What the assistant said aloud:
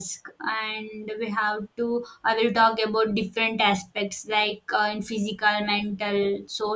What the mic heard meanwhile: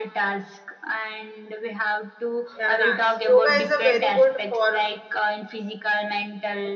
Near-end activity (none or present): present